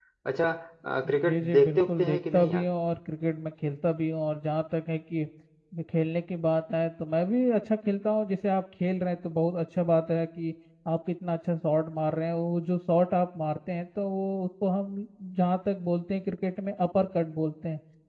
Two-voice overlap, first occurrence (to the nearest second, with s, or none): 1 s